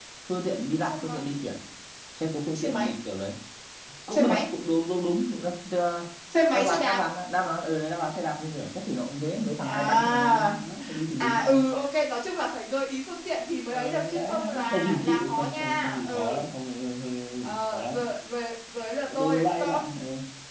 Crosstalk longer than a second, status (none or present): present